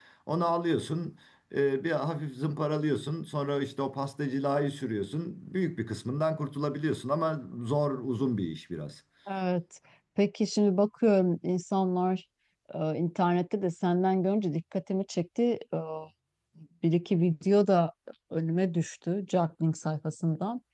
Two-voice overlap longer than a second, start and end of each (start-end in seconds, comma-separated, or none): none